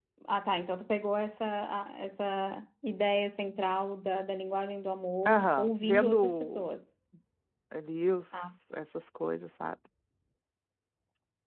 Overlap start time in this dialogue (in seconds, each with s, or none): 5.2 s